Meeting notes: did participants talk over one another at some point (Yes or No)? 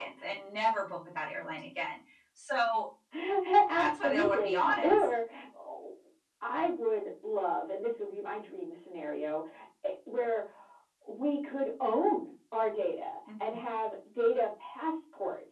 Yes